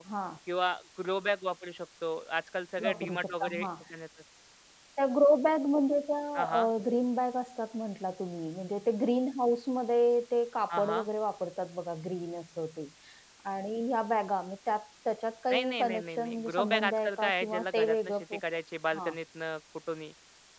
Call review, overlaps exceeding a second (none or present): present